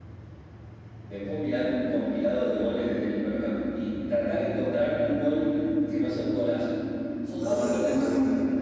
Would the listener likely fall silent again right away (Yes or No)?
No